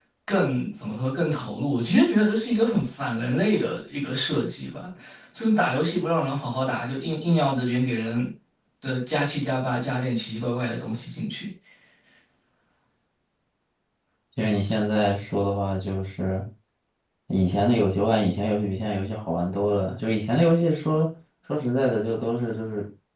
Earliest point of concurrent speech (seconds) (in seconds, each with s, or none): none